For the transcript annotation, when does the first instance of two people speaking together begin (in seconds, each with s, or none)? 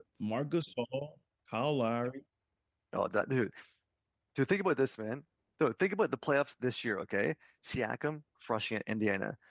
none